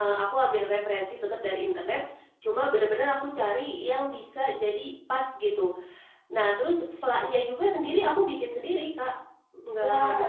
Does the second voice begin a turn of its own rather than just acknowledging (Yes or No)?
Yes